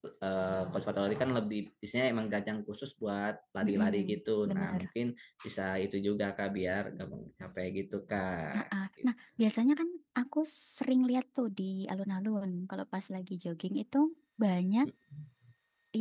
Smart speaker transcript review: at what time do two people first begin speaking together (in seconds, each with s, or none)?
3.6 s